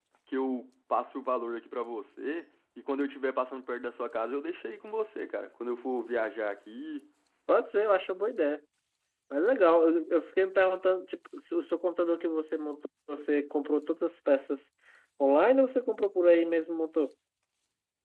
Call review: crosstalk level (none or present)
none